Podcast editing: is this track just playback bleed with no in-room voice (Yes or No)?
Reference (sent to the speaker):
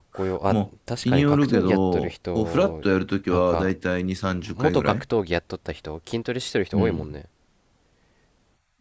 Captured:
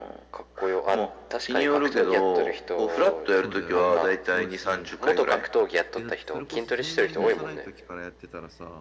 No